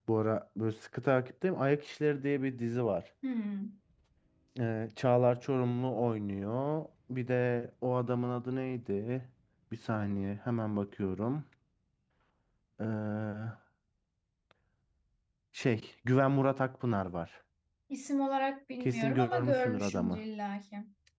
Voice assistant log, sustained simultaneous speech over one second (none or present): present